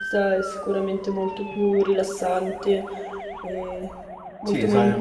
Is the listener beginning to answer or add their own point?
Yes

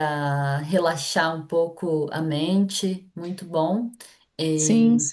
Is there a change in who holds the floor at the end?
No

